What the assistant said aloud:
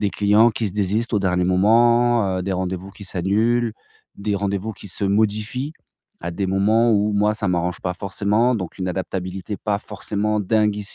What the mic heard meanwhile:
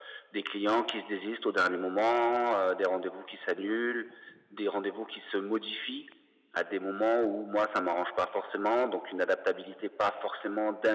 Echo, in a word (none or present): present